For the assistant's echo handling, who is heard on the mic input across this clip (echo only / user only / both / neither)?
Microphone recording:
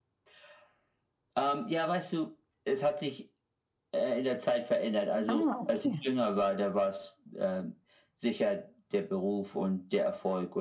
both